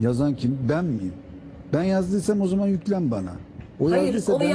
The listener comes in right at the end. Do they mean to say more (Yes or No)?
Yes